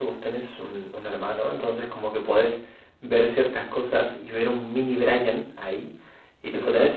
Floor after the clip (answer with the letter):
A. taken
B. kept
B